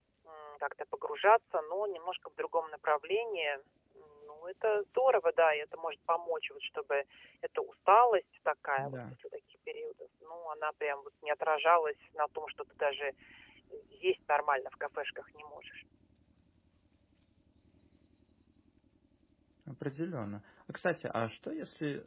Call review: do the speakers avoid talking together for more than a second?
Yes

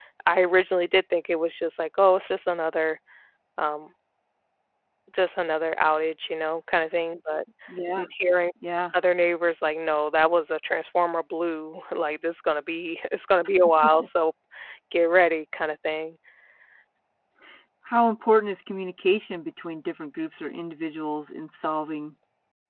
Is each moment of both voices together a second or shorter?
Yes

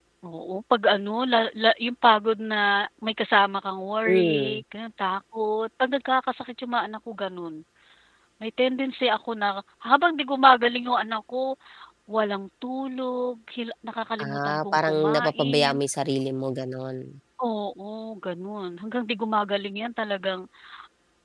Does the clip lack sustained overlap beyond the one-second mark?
No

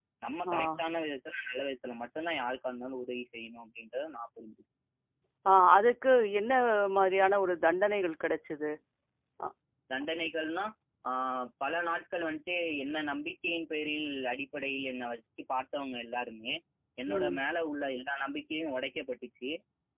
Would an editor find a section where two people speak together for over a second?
No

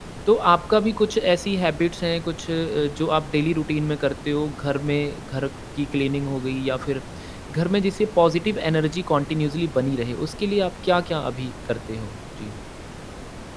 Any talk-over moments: No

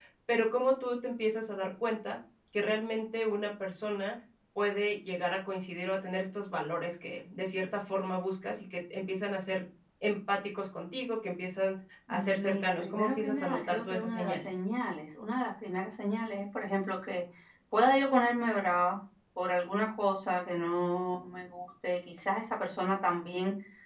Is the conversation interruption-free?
No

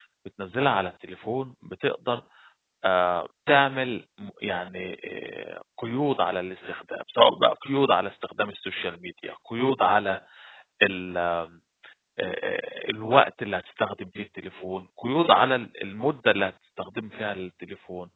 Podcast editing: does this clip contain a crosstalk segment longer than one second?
No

